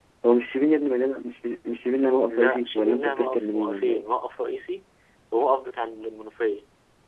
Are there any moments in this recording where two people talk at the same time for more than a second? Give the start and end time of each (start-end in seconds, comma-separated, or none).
2.2-4.0